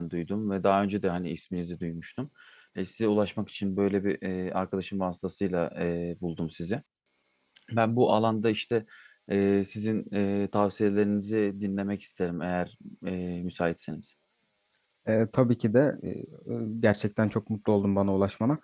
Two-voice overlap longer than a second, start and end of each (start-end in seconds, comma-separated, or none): none